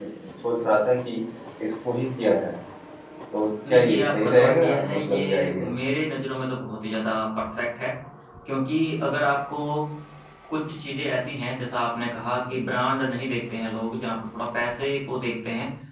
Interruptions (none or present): present